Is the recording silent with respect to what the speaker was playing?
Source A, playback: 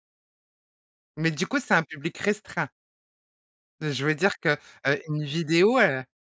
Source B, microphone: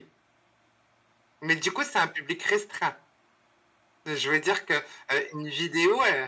No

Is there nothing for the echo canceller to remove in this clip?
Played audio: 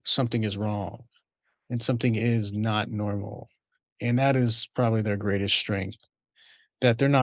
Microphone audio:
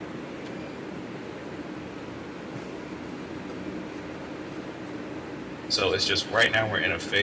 Yes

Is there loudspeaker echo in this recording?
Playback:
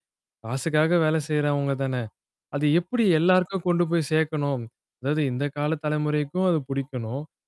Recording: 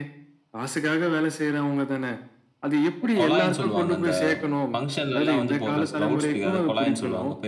Yes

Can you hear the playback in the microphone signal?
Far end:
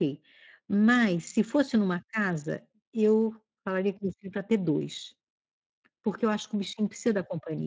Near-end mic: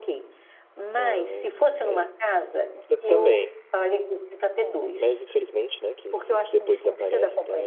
Yes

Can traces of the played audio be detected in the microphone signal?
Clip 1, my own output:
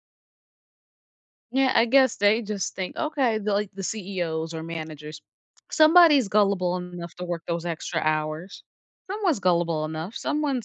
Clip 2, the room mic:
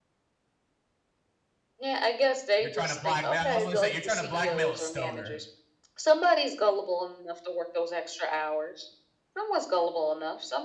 Yes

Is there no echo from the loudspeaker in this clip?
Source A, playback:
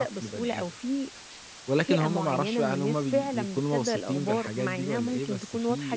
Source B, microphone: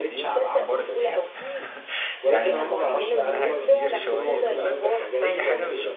No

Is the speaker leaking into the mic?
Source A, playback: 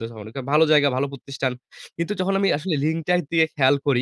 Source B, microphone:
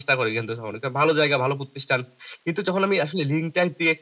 Yes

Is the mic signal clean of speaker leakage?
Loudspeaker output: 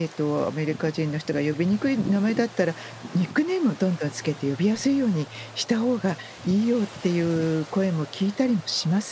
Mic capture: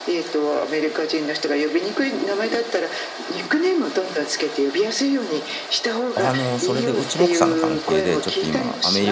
No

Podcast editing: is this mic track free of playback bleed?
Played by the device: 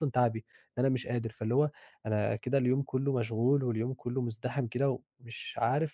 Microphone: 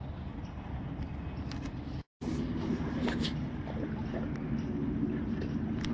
Yes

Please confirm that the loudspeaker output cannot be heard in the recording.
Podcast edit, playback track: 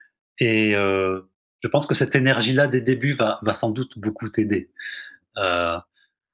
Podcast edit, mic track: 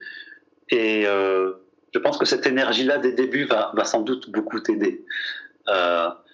No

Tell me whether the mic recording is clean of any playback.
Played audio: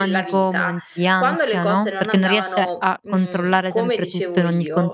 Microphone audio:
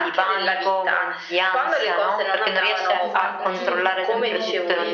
No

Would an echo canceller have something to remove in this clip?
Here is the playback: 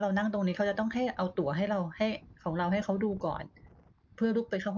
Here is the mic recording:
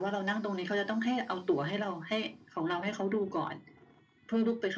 Yes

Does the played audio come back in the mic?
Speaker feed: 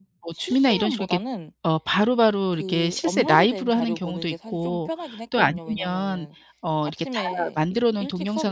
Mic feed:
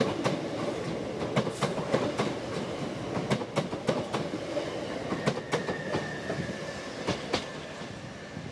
No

